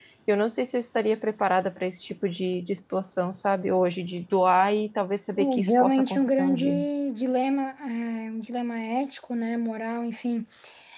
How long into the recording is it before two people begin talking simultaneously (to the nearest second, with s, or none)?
5 s